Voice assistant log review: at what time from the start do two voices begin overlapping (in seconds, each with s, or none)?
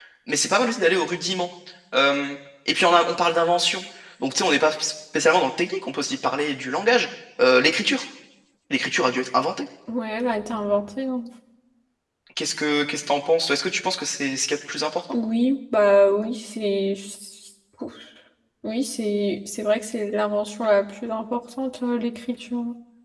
none